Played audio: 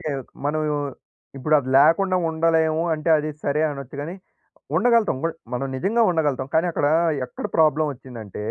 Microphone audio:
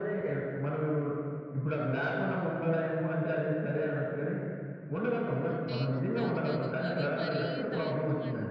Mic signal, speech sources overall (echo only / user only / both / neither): both